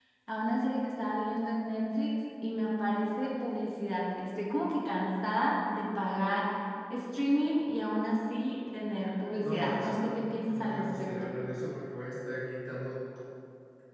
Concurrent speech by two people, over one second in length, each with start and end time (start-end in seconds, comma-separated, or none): 9.2-11.3